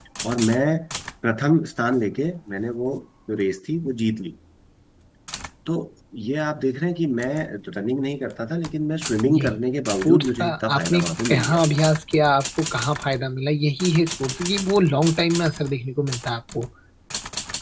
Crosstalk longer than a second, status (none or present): present